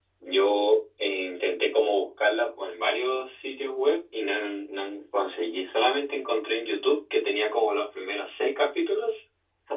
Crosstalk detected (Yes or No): No